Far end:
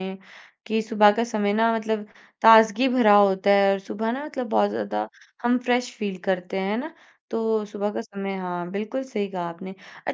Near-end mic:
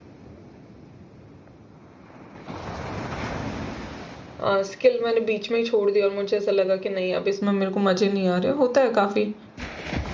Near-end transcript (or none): अ, स्किल मैंने बीच में ही छोड़ दी और मुझे ऐसा लगा कि नहीं अब इसमें मेरे को मज़े नहीं आ रहे, होता है काफ़ी।